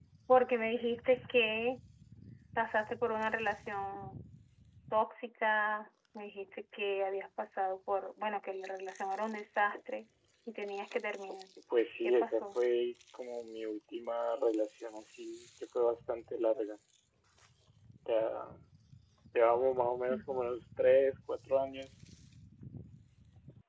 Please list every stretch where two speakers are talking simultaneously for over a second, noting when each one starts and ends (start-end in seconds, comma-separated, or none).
none